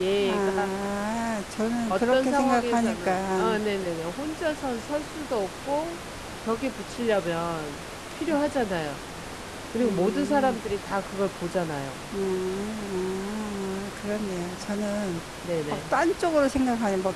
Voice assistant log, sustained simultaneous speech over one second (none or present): present